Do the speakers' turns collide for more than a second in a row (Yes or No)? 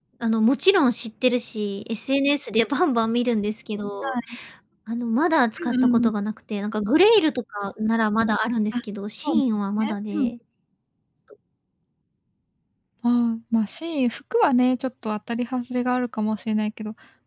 No